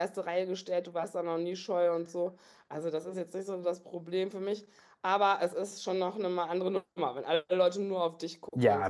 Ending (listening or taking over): taking over